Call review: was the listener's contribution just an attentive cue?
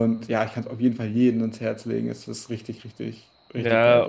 No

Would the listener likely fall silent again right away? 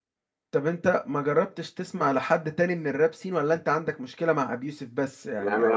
No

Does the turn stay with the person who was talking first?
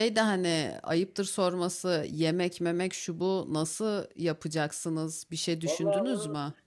No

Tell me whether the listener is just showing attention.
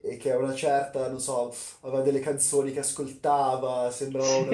Yes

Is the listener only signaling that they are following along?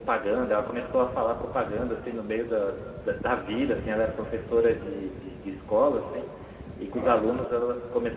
Yes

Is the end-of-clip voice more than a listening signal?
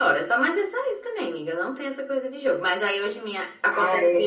No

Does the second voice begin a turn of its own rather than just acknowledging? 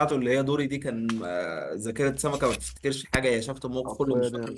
No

